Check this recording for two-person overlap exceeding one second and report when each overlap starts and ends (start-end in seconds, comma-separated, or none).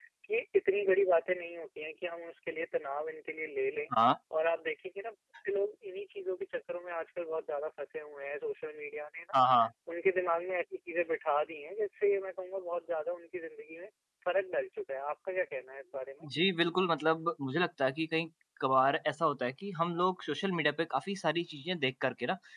none